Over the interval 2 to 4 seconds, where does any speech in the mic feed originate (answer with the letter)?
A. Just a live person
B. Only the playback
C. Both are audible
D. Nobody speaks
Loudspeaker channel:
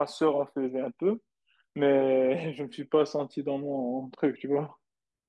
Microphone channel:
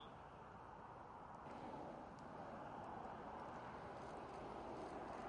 D